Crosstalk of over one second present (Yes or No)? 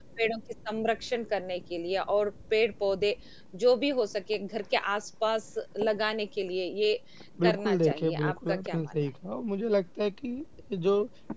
Yes